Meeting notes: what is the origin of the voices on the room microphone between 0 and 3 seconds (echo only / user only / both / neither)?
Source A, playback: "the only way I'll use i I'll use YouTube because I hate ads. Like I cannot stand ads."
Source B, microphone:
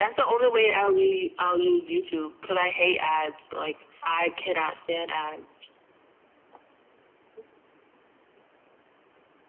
echo only